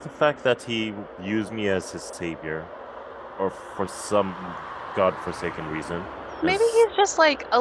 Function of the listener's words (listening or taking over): taking over